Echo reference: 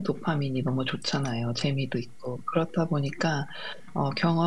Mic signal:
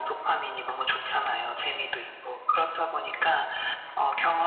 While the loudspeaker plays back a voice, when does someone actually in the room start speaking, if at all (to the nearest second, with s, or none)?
none